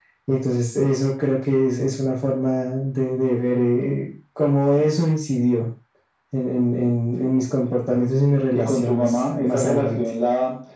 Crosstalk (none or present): present